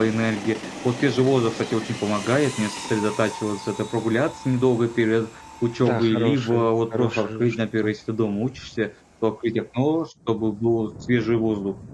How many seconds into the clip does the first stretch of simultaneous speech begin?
5.8 s

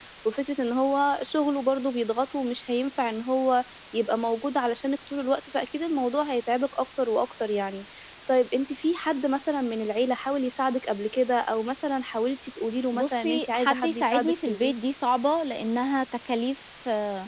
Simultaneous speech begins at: 12.9 s

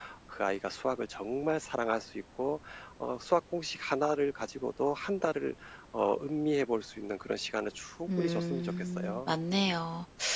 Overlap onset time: 8.1 s

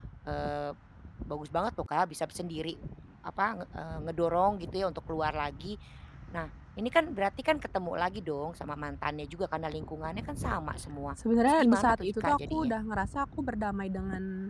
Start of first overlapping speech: 11.5 s

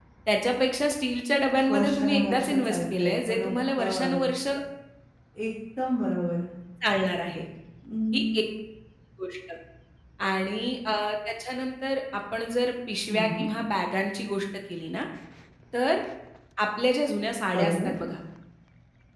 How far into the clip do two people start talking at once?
1.7 s

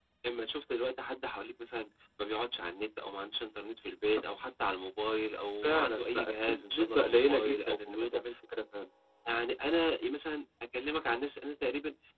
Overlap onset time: 5.6 s

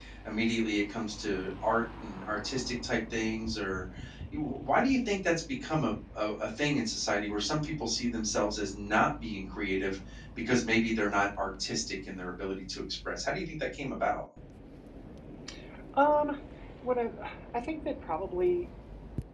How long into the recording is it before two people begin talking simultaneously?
none

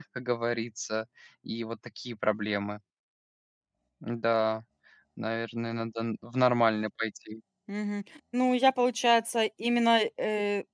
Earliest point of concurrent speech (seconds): none

